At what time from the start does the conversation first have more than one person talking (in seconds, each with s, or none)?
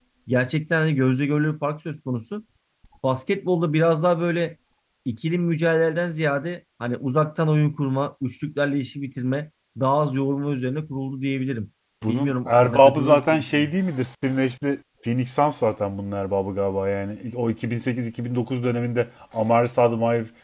12.0 s